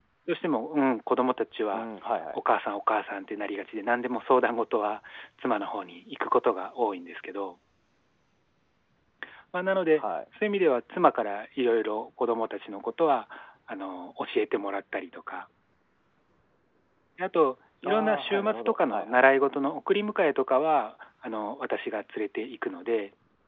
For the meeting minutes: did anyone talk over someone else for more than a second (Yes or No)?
Yes